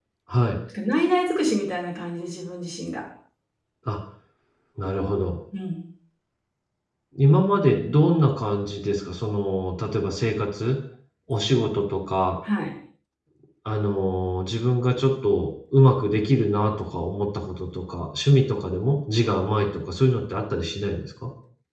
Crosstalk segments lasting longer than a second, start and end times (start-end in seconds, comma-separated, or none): none